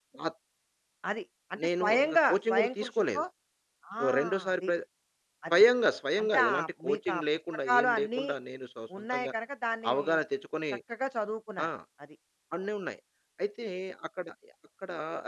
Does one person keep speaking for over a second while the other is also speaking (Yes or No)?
Yes